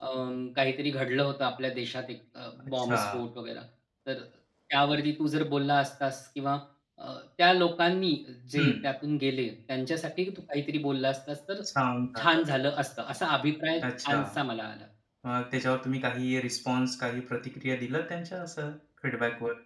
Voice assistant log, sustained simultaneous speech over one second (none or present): none